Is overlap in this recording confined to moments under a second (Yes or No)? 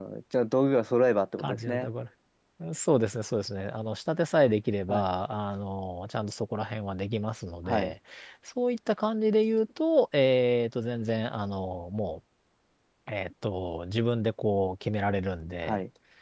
Yes